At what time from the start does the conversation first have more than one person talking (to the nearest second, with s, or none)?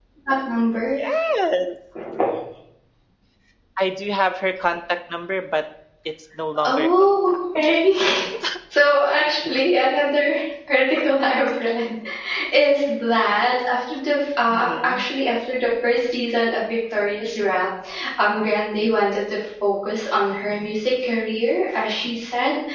7 s